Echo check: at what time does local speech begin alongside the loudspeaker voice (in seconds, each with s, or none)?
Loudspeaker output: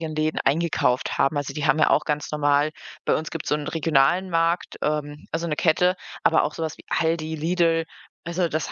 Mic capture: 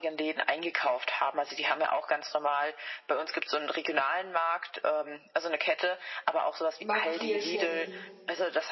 6.8 s